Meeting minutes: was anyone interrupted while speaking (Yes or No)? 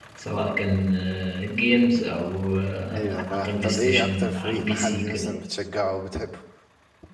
Yes